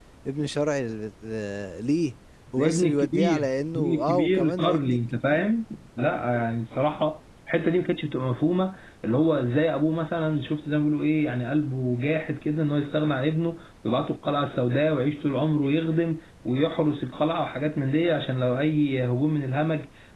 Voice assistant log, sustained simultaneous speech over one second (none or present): present